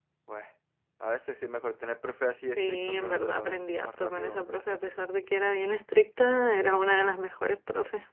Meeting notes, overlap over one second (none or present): present